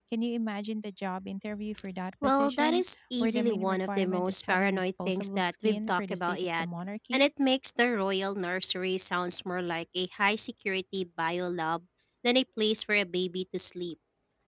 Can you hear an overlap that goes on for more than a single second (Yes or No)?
Yes